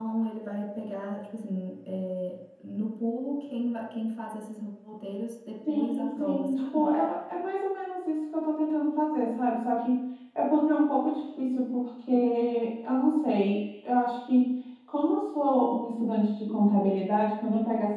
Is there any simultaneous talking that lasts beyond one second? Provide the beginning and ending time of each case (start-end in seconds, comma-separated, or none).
5.7-6.9